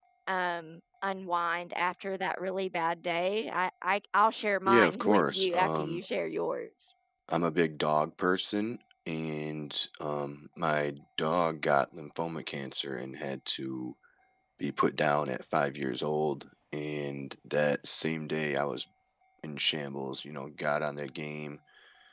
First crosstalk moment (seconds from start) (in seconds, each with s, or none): 4.7 s